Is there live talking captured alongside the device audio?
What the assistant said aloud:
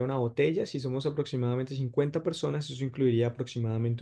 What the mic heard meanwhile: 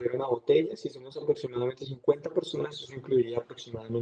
No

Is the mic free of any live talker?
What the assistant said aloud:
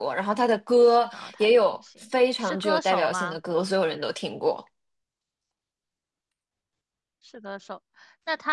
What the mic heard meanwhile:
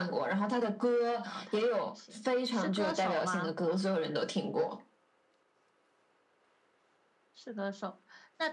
Yes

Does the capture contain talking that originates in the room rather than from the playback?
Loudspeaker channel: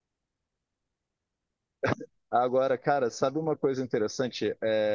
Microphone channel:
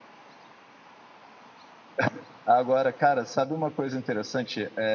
No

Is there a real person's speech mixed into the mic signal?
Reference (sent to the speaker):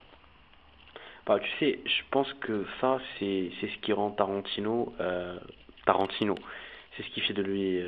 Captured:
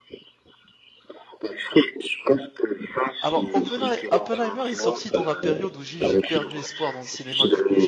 Yes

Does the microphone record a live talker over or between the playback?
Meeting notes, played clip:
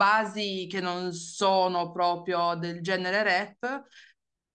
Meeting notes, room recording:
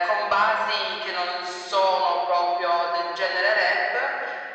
No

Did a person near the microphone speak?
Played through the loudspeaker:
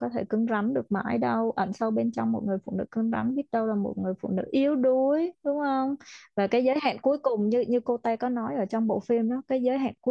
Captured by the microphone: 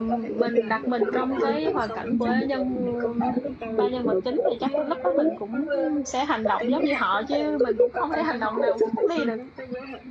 Yes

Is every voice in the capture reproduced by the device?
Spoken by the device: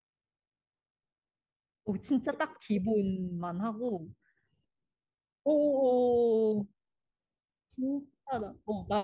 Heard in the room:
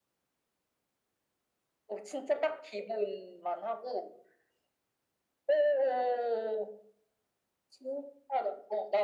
Yes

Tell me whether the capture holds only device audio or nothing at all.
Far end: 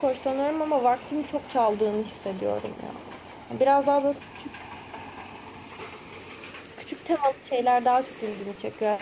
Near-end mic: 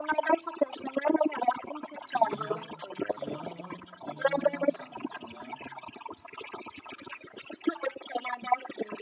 No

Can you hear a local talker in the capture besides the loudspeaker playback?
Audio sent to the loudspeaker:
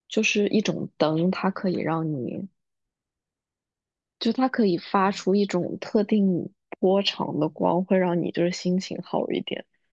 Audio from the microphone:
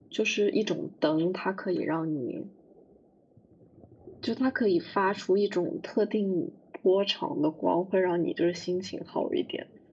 No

